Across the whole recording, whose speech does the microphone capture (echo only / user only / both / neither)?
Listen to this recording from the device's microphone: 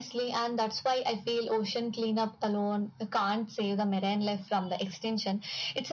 echo only